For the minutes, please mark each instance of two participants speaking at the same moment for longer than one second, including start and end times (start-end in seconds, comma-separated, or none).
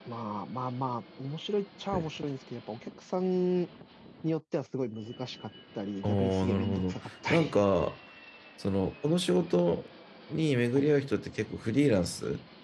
6.0-7.6